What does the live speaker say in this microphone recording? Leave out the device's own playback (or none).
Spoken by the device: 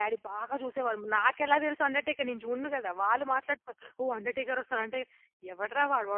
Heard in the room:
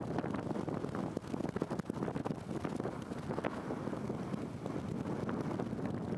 none